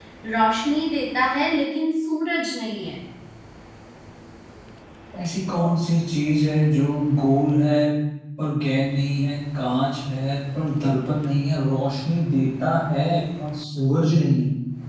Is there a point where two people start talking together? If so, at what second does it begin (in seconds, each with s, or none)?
none